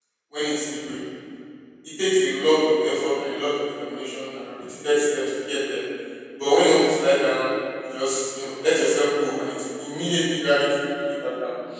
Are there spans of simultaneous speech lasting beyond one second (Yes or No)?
No